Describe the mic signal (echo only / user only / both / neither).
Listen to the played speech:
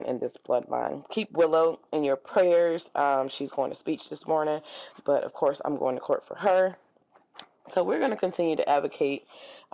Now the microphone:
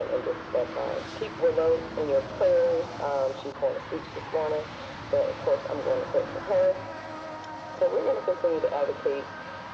echo only